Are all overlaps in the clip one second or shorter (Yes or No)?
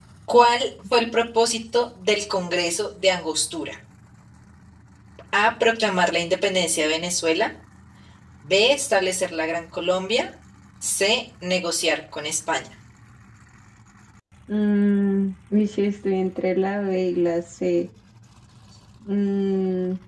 Yes